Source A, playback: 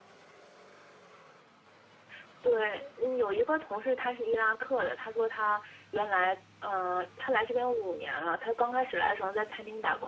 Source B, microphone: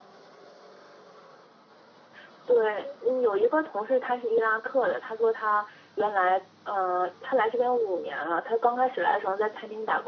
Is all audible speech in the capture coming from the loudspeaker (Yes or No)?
Yes